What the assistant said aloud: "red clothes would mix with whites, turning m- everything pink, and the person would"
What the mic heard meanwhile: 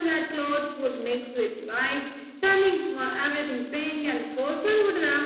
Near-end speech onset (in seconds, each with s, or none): none